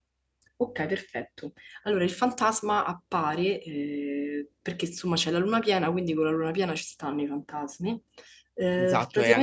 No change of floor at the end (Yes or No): No